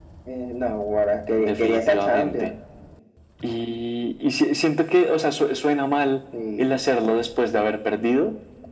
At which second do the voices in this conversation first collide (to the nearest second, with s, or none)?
1 s